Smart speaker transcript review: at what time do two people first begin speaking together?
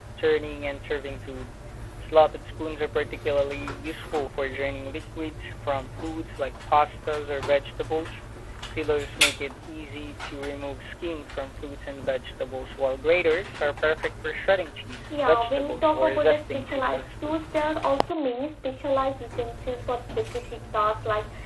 15.1 s

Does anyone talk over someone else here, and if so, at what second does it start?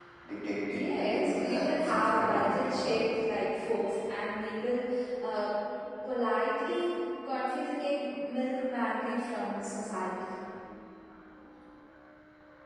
0.7 s

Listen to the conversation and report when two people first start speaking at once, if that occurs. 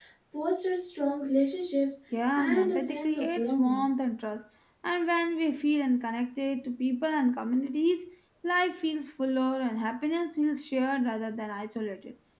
2.4 s

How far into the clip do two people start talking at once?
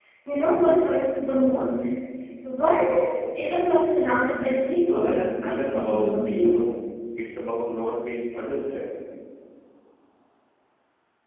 4.8 s

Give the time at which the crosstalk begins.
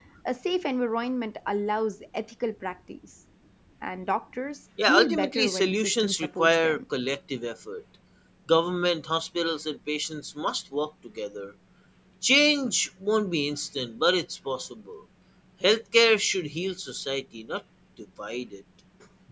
4.8 s

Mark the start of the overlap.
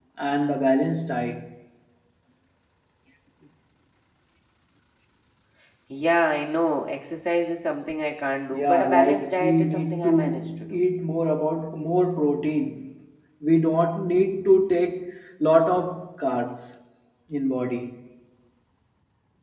8.5 s

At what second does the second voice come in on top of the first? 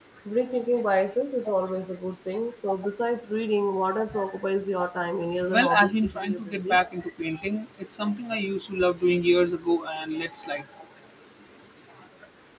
5.5 s

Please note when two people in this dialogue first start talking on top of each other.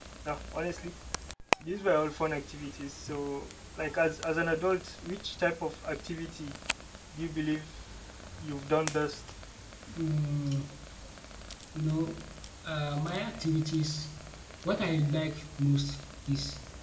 none

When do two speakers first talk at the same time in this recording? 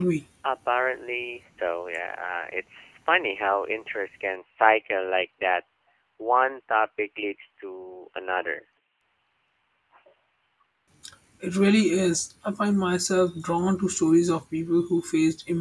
none

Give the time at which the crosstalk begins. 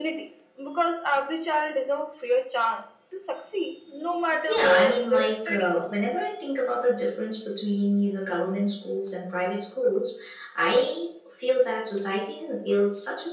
4.3 s

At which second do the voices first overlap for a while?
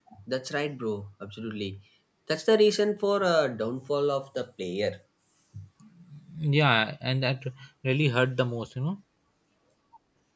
none

